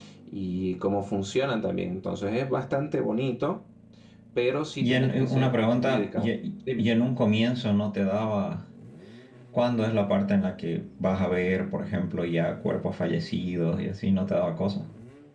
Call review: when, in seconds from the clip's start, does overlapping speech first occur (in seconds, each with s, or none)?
4.8 s